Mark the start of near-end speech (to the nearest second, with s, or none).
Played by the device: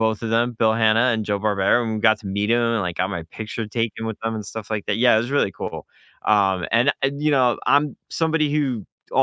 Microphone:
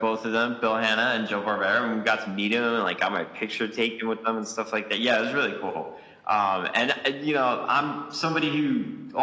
none